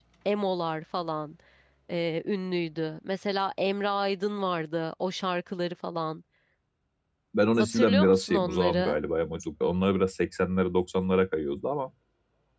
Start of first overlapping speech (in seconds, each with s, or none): 7.6 s